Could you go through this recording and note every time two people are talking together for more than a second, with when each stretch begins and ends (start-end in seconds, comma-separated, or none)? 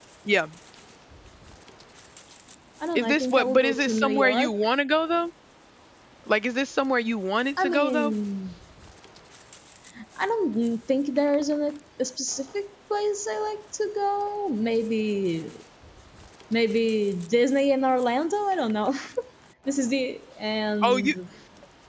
3.0-4.5